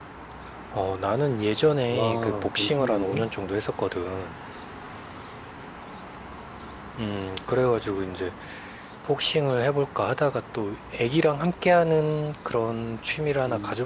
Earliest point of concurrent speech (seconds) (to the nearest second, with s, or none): 2 s